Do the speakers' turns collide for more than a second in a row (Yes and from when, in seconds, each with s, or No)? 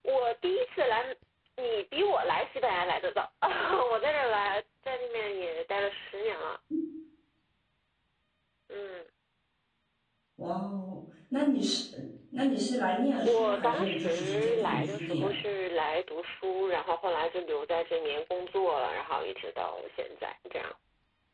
Yes, from 13.2 s